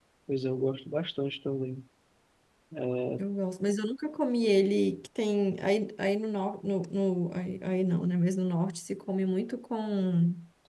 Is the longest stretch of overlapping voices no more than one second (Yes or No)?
Yes